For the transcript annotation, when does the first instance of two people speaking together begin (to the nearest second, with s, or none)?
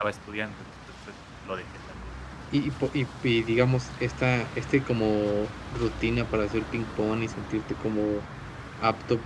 none